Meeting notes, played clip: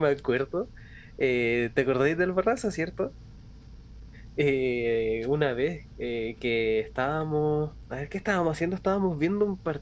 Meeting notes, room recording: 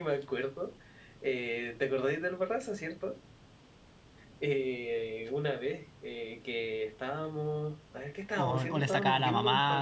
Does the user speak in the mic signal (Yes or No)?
Yes